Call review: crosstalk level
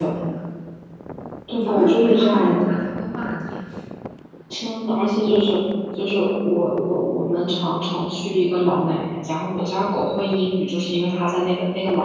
present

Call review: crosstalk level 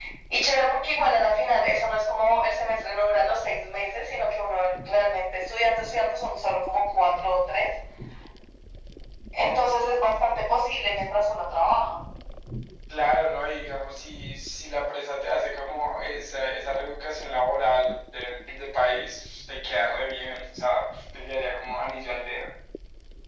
none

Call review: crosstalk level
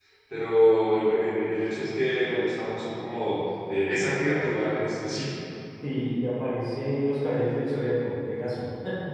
none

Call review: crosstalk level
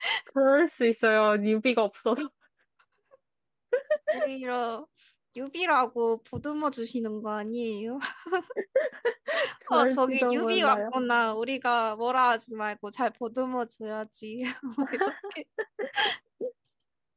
present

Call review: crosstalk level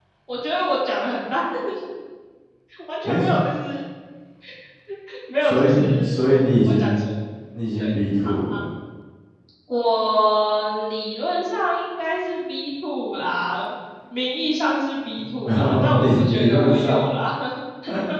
present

